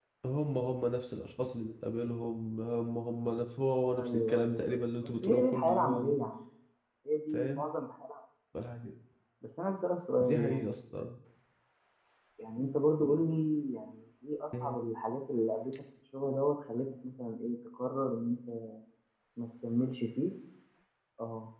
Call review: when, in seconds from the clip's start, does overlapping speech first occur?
4.0 s

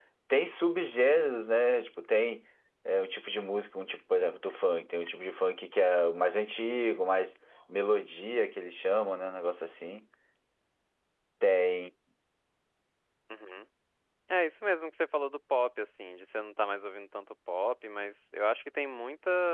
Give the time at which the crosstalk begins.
none

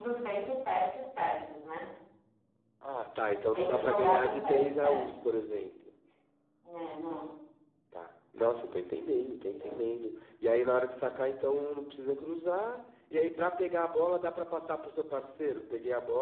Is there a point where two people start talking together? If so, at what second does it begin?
3.5 s

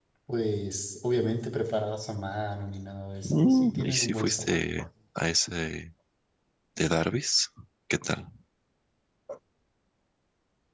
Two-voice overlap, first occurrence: 3.2 s

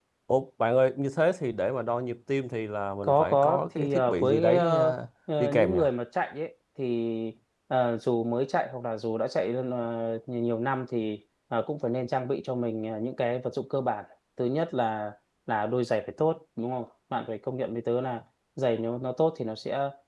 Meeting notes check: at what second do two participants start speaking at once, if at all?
3.0 s

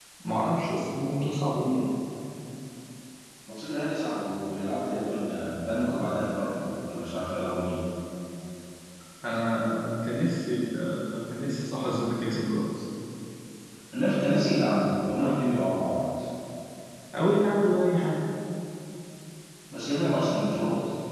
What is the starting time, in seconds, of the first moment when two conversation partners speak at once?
none

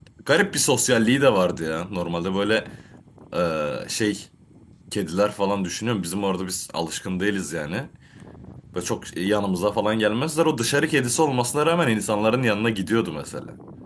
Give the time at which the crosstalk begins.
none

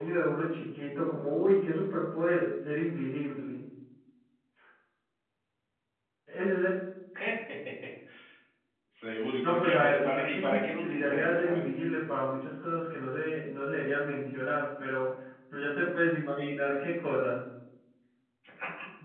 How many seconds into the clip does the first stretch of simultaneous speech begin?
9.4 s

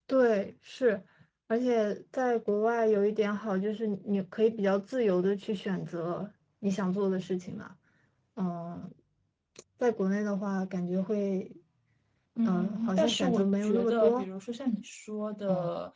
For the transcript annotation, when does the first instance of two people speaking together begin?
12.4 s

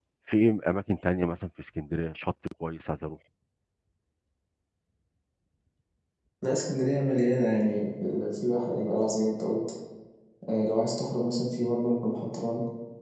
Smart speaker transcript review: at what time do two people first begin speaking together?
none

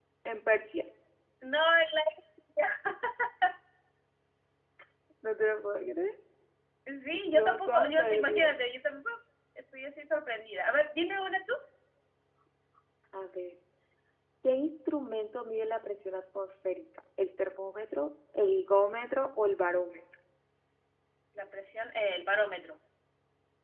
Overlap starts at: 7.3 s

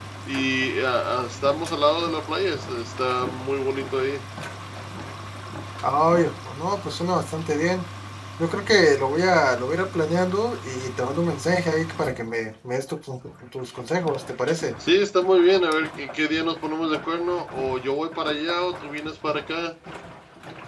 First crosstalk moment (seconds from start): none

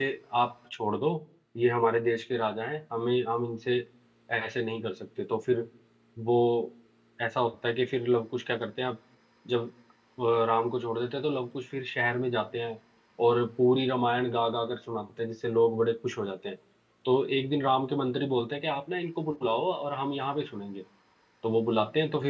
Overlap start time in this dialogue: none

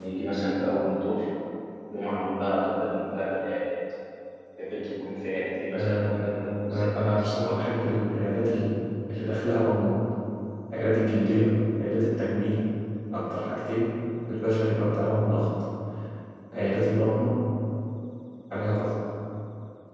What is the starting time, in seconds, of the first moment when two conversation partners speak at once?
5.7 s

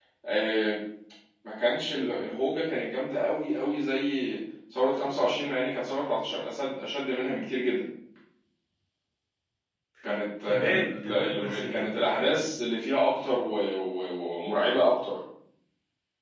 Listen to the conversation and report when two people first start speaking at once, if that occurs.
10.5 s

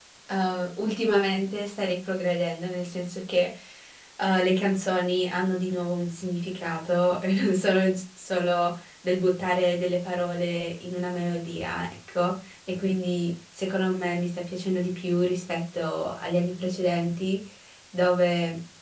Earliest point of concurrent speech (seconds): none

